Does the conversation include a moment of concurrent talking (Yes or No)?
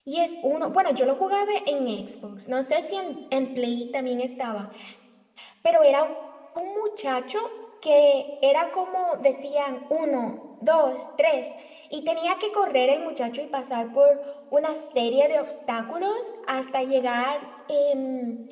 No